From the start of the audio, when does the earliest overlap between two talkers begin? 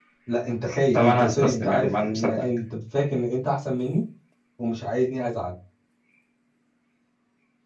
0.9 s

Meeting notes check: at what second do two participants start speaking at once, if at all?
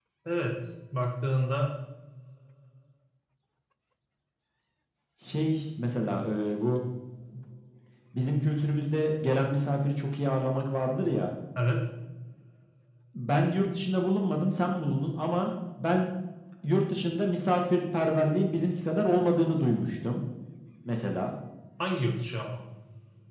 none

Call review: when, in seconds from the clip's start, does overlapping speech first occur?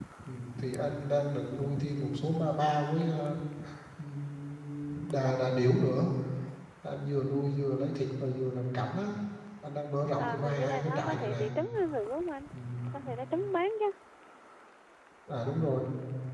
10.2 s

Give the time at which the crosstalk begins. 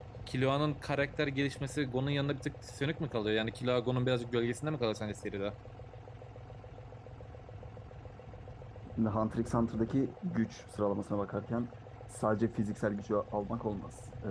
none

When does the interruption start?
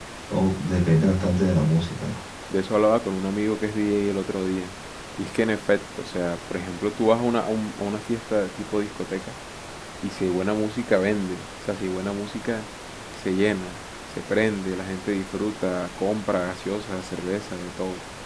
none

